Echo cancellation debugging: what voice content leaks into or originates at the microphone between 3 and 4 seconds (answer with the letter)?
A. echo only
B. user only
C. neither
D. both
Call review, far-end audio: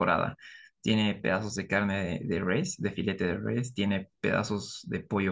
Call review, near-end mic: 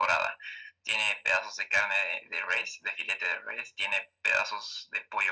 A